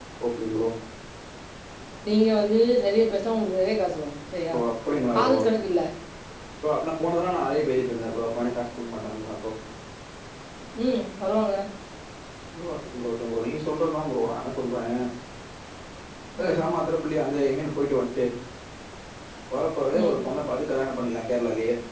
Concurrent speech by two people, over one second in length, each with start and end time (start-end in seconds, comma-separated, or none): none